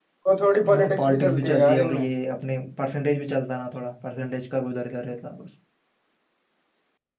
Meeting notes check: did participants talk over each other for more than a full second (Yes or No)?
Yes